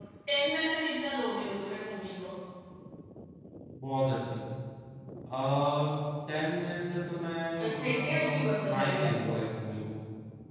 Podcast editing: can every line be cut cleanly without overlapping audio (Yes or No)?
No